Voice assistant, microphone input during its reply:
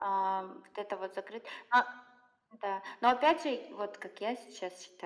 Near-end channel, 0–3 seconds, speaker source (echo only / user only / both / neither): echo only